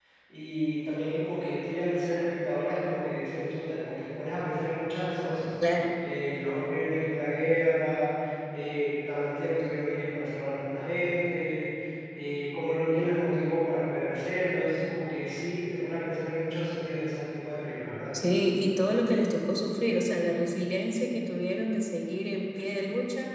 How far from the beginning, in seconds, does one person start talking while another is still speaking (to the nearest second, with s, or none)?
none